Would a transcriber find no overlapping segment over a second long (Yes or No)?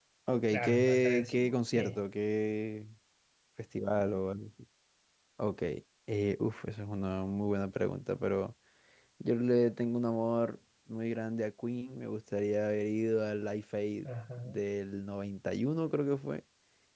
No